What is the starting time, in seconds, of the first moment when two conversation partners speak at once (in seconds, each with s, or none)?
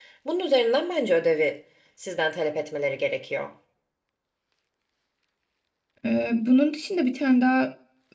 none